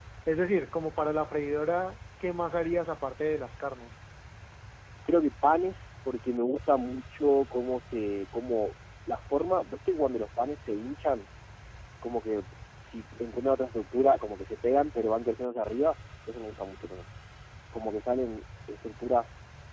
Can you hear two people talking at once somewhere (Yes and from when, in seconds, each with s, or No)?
No